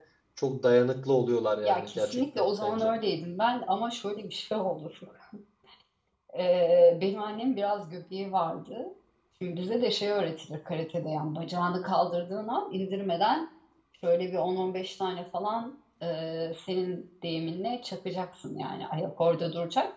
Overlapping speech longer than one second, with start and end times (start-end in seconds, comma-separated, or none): 1.6-2.9